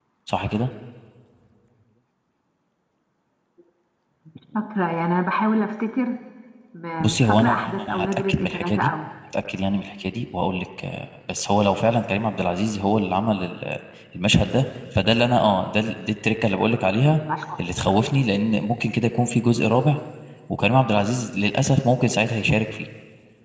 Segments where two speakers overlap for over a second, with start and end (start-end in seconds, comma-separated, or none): 7.0-8.9